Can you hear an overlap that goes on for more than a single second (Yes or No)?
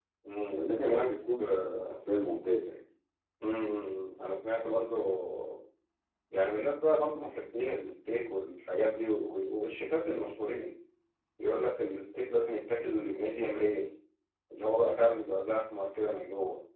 Yes